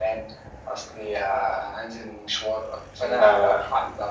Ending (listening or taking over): listening